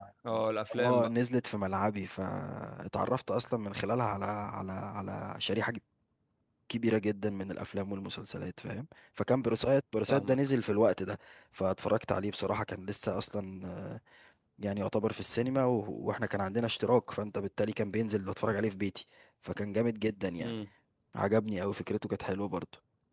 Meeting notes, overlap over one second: none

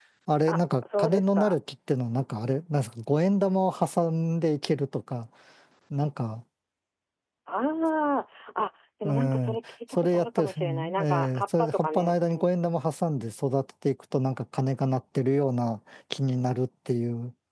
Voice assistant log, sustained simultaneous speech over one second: present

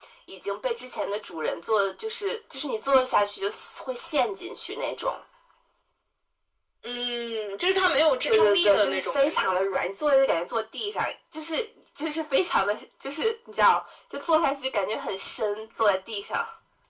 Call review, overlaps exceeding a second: present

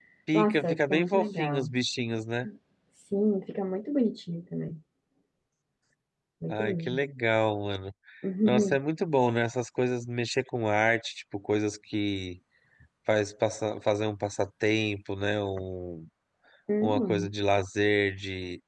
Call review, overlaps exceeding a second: present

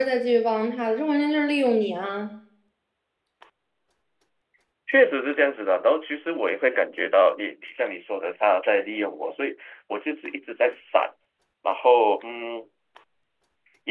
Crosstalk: none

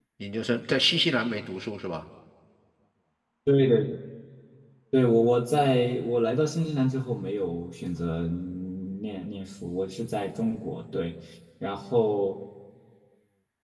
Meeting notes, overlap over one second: none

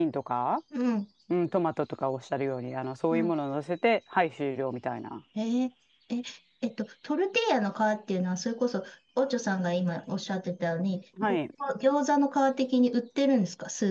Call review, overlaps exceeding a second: none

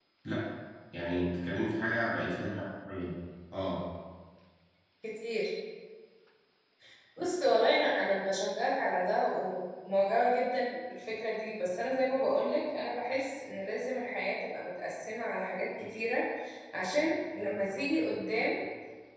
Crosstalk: none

